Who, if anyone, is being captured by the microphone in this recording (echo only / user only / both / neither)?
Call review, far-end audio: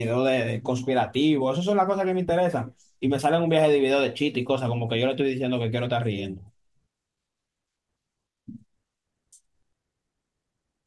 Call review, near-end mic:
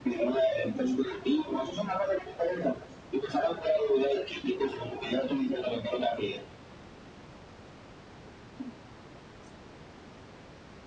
echo only